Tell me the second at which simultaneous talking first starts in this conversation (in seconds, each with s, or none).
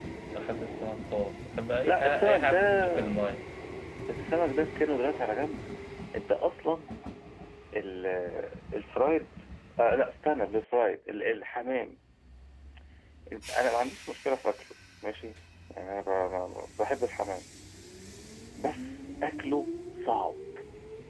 1.8 s